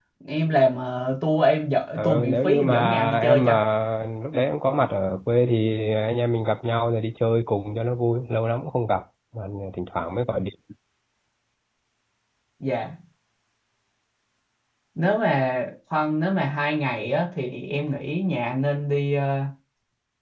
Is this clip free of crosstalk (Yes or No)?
No